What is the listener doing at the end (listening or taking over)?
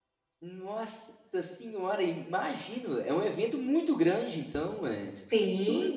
taking over